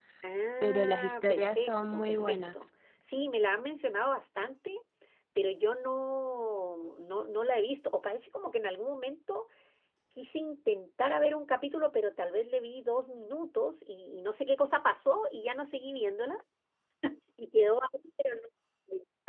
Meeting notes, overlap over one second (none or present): present